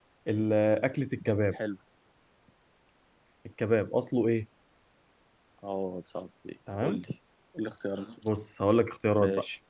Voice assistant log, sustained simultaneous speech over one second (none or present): none